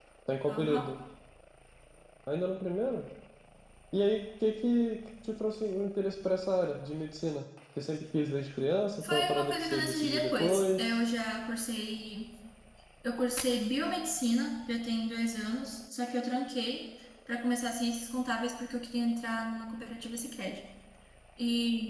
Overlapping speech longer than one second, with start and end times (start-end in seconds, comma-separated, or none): 9.0-11.0